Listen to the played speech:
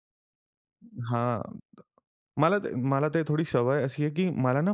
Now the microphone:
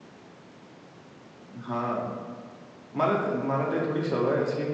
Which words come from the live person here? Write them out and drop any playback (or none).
none